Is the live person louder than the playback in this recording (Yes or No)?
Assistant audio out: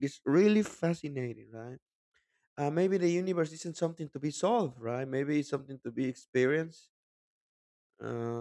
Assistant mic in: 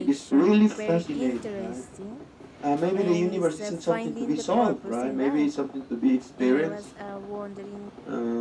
No